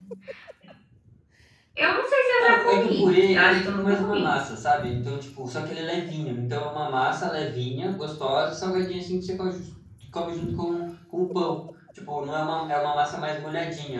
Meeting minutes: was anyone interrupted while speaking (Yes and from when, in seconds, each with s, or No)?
Yes, from 2.4 s